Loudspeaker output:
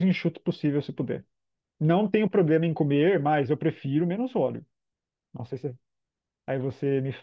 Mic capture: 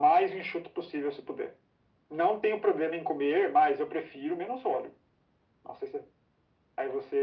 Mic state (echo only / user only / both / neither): echo only